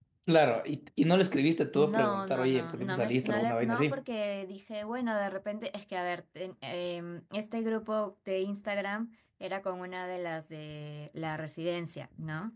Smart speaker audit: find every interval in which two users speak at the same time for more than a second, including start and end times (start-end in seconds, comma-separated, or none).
1.7-4.0